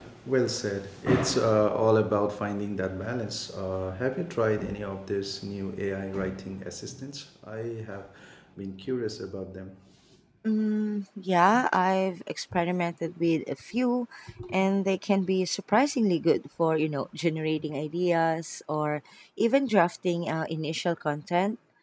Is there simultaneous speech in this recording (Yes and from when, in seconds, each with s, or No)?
No